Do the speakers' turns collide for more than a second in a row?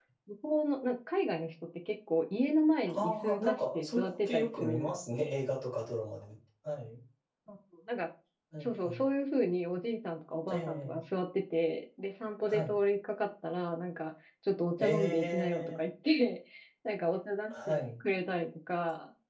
Yes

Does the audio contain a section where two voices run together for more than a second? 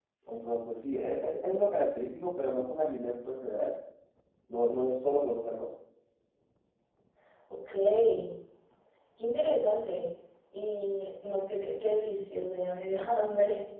No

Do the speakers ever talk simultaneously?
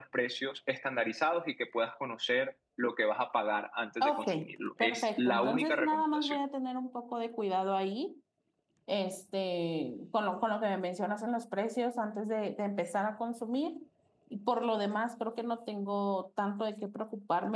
Yes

